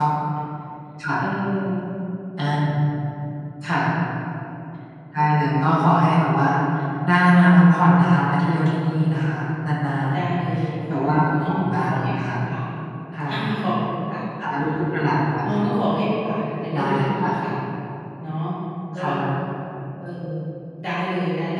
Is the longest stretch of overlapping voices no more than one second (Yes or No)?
No